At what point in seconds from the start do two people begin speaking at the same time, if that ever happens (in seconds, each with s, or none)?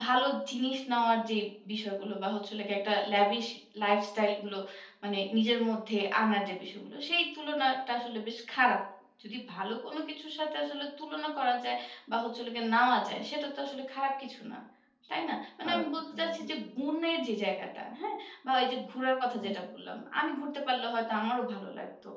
15.6 s